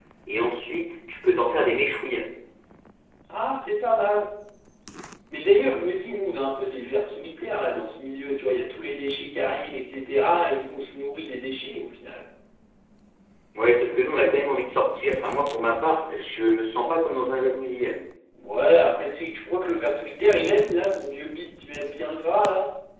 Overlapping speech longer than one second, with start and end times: none

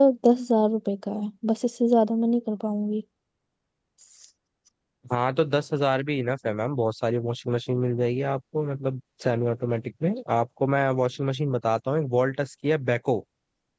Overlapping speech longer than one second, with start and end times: none

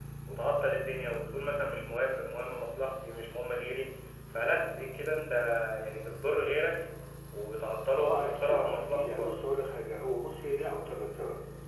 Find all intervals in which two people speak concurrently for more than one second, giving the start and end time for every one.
7.9-9.3

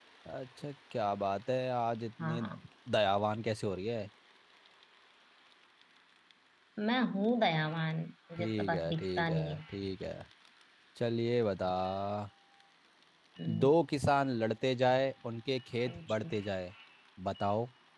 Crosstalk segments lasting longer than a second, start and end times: 8.4-9.6

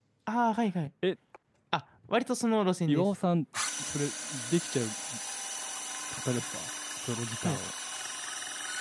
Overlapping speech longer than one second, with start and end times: none

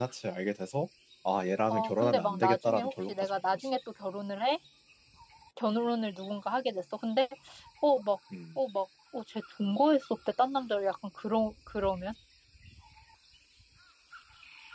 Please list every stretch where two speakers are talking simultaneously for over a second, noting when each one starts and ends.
1.7-3.7

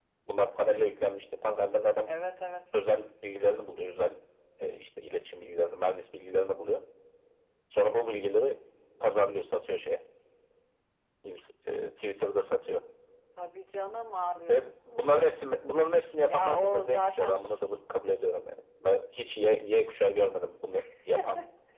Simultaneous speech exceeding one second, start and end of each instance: 16.3-17.7

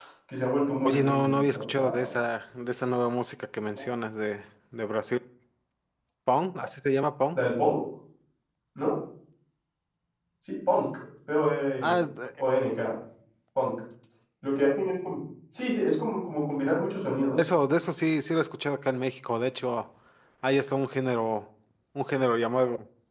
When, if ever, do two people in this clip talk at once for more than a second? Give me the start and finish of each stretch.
0.8-2.1

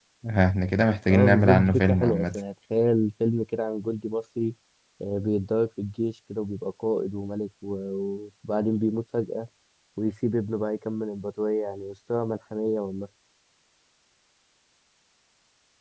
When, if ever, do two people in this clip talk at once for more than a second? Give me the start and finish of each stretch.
1.1-2.4

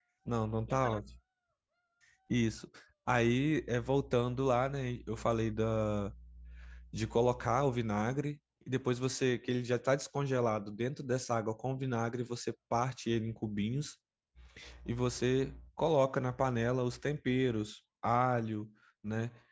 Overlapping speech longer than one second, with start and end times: none

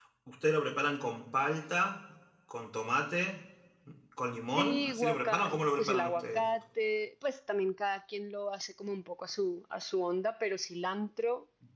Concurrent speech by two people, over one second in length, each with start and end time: 4.5-6.4

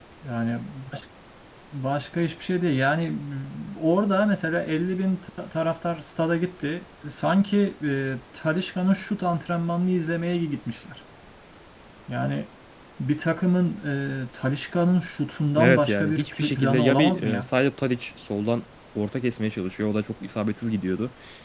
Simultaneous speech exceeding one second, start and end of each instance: 15.6-17.5

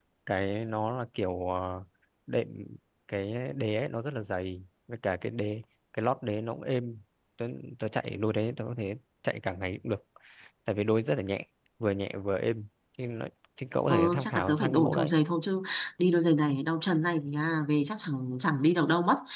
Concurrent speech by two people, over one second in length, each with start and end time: 13.9-15.1

